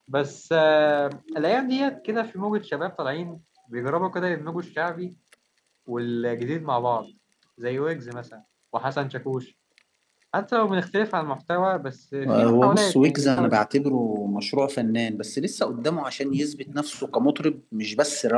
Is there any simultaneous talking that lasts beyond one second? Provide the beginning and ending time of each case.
12.3-13.6

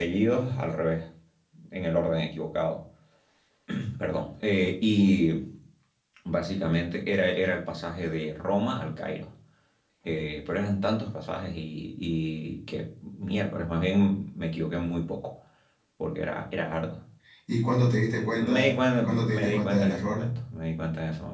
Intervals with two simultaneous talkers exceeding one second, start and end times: 18.0-20.3

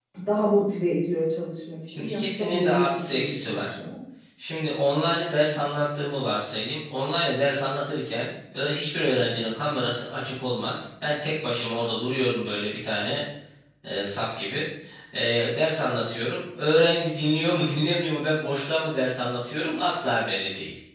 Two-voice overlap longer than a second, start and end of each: 1.9-3.8

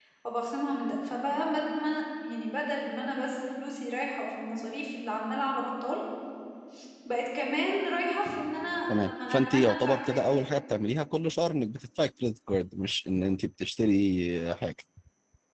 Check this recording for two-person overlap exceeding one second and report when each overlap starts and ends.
8.9-10.4

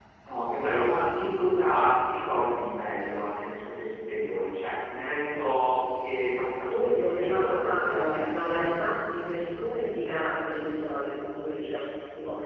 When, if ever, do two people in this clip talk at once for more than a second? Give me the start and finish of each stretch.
6.7-8.7

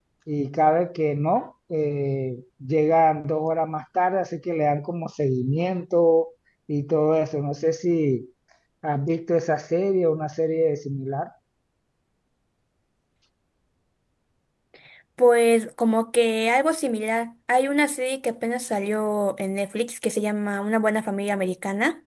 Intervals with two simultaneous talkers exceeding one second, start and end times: none

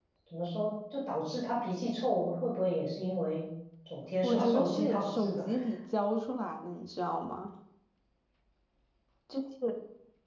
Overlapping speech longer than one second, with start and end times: 4.2-5.5

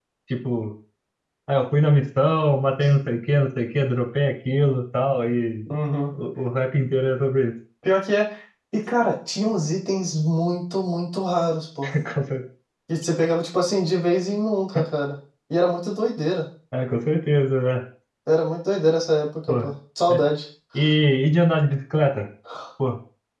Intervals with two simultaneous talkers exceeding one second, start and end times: none

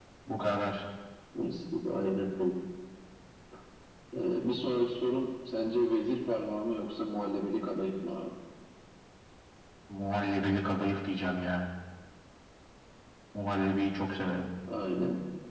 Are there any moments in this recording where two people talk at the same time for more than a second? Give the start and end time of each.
none

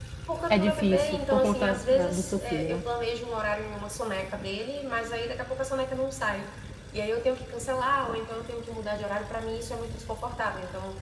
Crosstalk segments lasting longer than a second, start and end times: 0.5-2.8

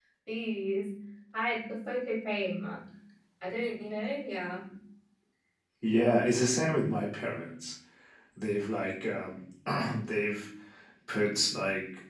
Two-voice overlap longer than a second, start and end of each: none

